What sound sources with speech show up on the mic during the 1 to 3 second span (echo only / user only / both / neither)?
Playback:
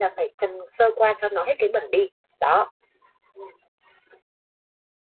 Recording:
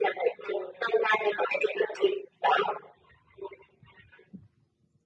echo only